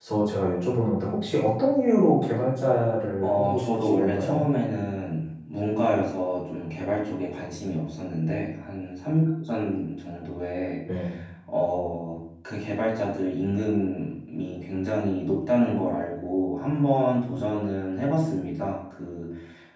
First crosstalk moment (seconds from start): 3.2 s

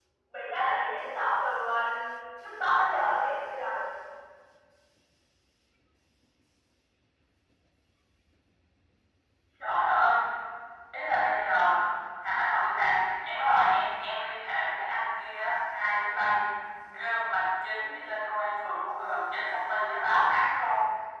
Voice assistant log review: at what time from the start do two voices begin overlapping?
none

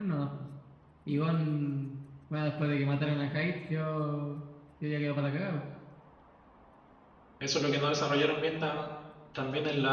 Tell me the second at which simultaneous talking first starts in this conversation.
none

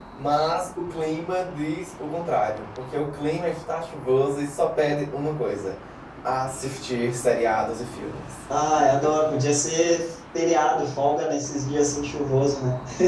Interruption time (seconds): none

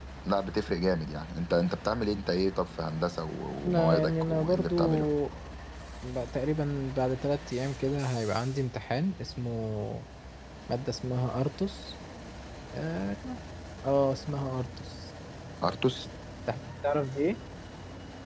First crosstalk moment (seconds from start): 3.5 s

